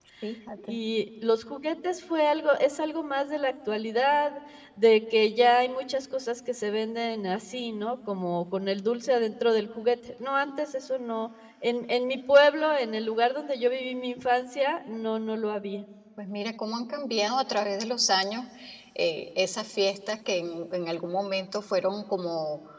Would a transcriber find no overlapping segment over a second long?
Yes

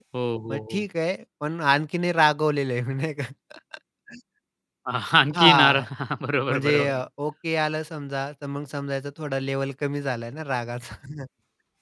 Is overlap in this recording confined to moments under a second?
Yes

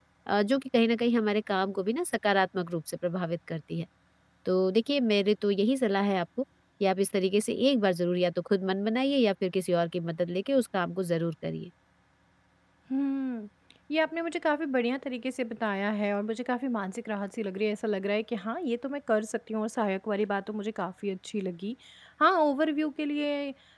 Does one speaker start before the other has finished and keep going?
No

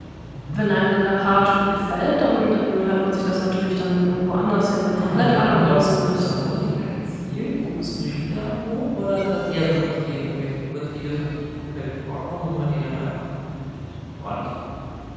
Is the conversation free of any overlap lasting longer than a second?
No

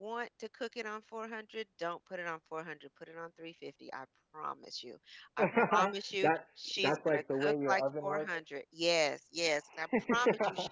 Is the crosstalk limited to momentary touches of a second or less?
No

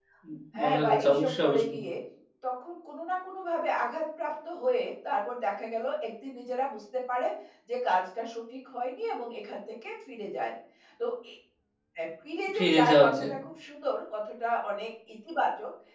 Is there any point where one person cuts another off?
Yes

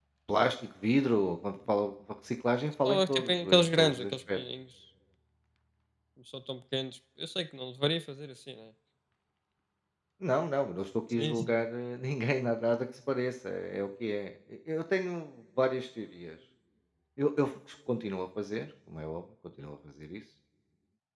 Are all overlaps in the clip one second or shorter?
No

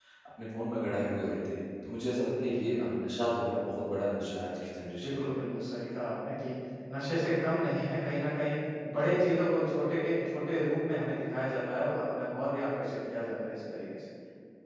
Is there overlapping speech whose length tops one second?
No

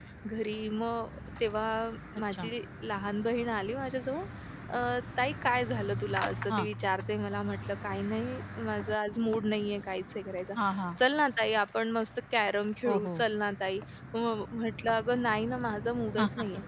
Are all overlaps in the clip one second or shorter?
Yes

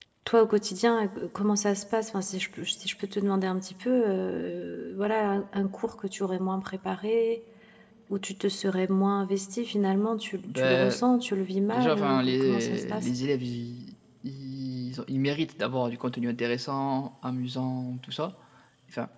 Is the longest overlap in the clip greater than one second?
Yes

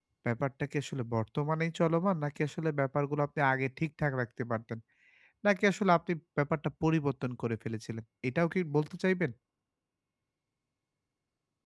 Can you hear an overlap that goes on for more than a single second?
No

